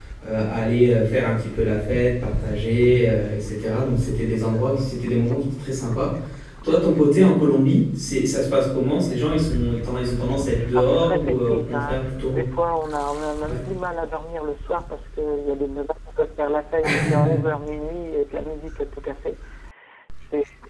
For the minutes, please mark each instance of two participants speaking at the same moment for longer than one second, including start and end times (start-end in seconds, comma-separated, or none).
10.8-12.4